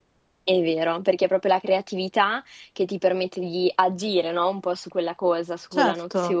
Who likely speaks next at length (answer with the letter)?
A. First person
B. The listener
A